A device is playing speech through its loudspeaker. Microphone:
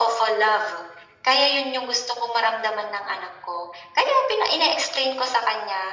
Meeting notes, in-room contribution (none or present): none